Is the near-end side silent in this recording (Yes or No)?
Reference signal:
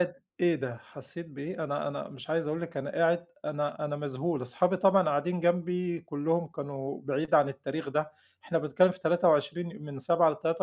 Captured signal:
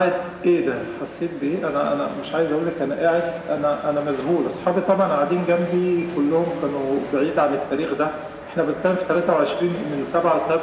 Yes